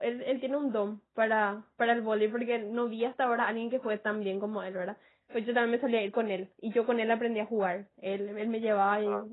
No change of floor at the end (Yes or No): Yes